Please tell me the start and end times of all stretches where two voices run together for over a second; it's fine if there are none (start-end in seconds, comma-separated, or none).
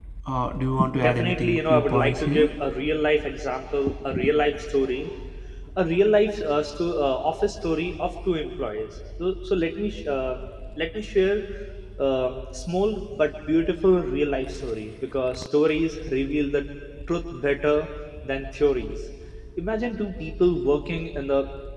1.0-2.5